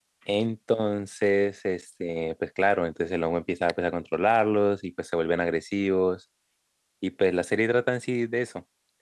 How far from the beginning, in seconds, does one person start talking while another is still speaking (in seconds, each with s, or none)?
none